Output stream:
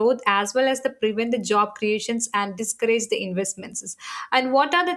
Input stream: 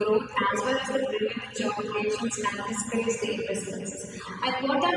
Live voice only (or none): none